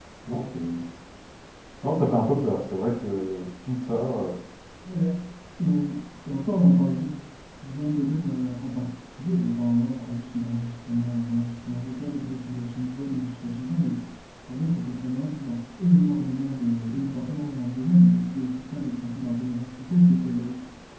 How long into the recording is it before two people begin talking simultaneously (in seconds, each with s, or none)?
none